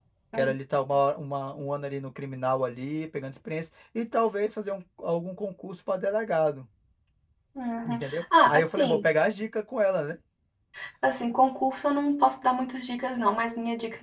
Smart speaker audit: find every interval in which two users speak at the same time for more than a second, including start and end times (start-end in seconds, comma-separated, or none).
7.8-9.1